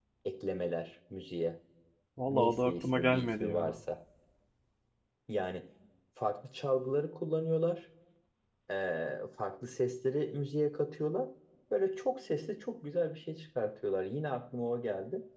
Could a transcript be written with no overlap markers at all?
No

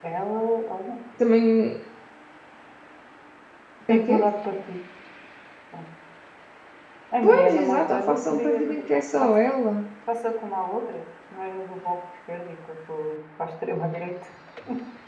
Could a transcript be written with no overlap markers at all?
No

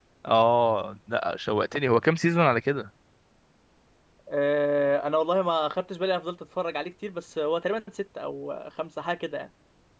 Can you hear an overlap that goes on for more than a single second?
No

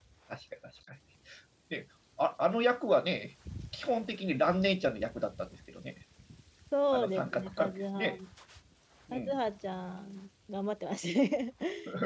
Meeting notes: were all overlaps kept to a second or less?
No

